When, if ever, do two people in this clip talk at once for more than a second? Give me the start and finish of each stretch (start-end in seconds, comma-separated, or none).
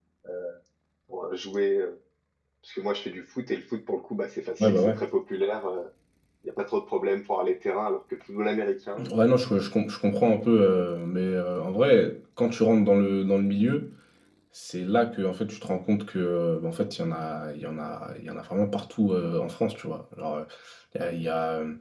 none